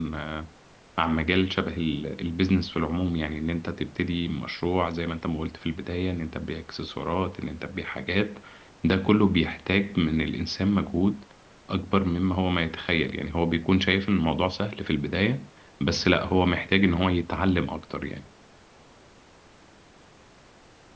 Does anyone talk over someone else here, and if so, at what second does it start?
none

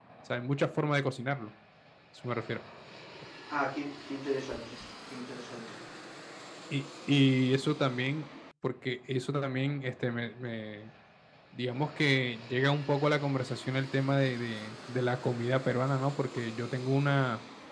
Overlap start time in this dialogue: none

